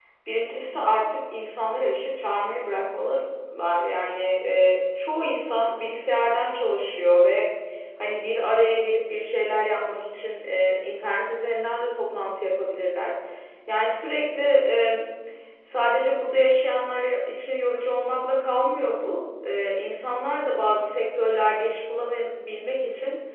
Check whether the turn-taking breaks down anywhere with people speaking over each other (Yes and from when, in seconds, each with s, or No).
No